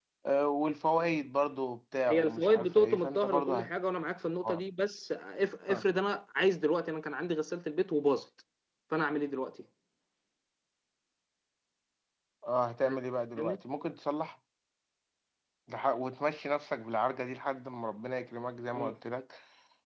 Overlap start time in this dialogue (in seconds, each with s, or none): 2.1 s